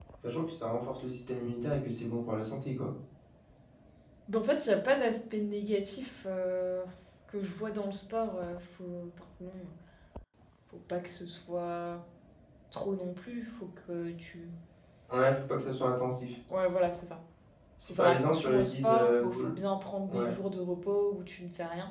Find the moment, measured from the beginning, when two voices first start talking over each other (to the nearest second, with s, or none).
18 s